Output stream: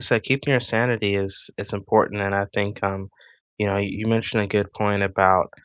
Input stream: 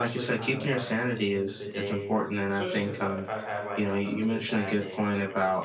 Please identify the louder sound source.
echo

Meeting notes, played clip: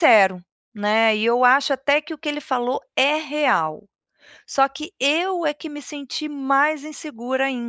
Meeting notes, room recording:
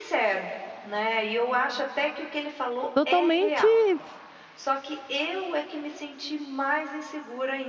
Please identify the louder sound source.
user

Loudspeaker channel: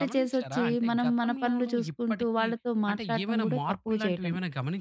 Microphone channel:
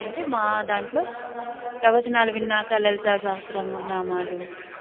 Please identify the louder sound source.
user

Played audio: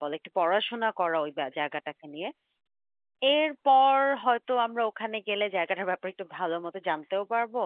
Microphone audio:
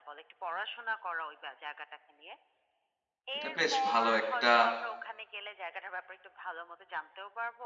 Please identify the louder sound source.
user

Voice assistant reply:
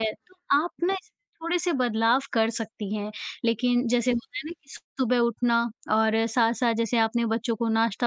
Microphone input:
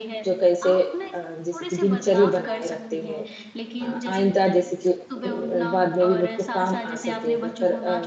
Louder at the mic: user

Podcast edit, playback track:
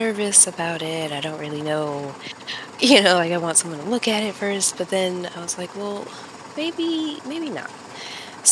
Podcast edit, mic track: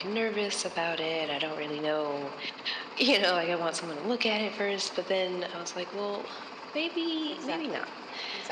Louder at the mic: echo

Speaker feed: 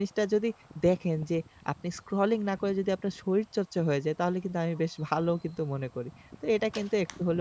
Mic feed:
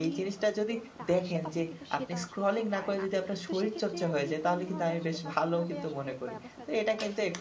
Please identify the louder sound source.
echo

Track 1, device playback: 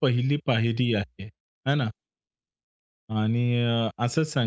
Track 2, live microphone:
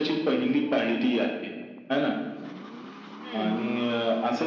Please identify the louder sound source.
echo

